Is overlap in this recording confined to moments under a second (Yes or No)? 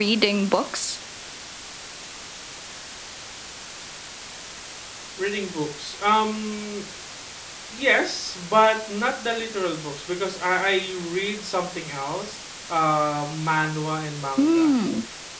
Yes